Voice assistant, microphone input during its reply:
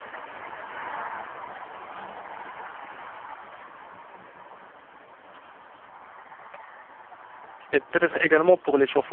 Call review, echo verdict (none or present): none